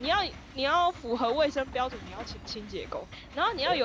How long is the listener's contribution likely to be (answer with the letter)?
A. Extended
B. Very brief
B